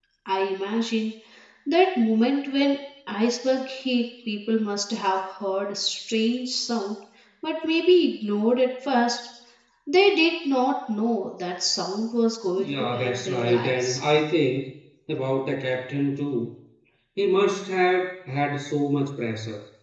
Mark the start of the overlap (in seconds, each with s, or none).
12.6 s